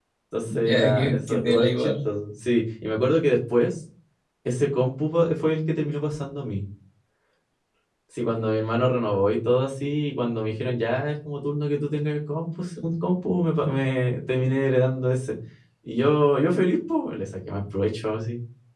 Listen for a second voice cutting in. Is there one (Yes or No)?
Yes